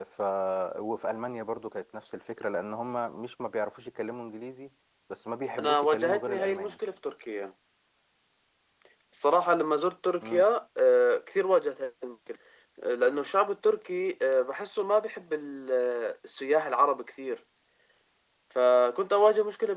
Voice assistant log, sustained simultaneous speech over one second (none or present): present